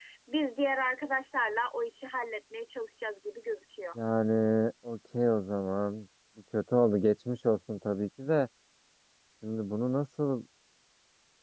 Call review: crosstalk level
none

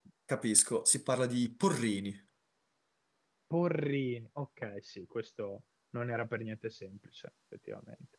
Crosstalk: none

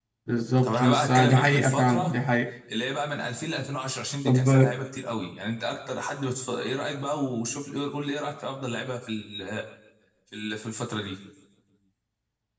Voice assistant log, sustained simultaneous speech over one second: present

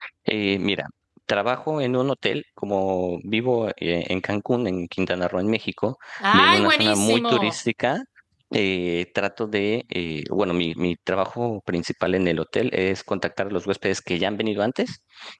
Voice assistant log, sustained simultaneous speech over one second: present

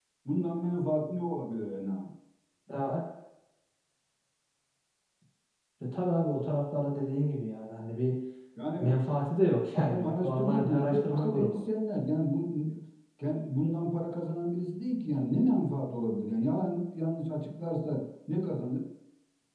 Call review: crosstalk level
present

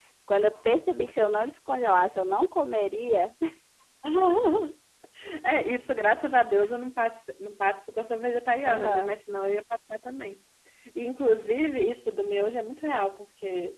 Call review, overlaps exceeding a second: none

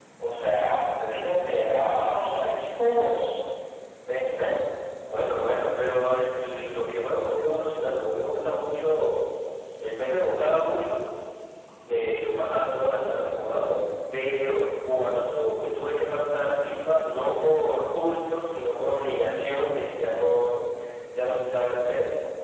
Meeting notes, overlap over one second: none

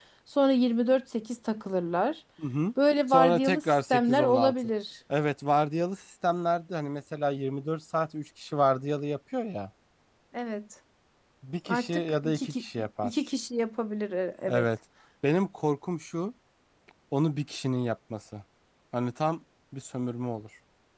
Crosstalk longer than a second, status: present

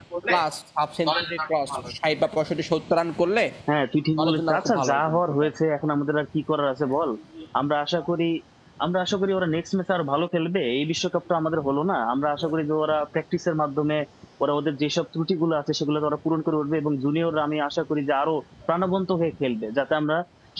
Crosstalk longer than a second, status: present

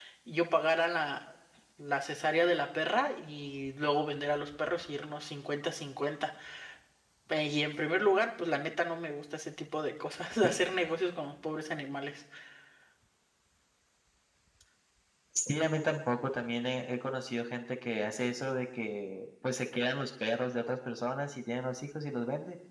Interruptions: none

